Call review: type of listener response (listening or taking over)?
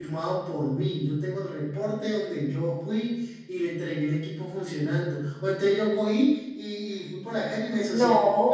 listening